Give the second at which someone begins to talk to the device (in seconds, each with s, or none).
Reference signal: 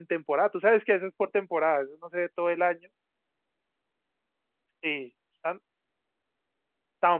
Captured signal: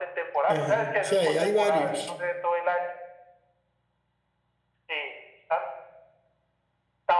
0.5 s